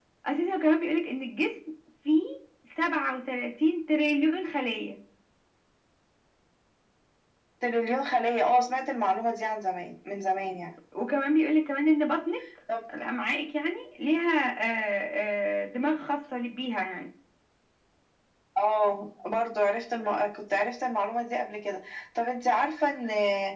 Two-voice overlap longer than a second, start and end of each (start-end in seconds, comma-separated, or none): none